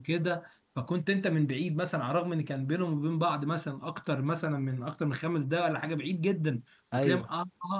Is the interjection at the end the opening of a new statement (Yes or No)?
No